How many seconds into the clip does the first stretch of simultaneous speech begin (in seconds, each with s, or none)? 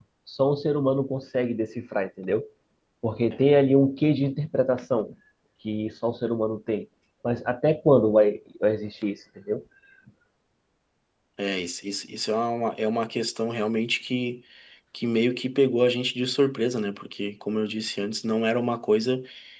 none